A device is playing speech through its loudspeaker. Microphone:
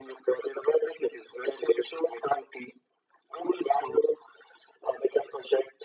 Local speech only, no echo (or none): none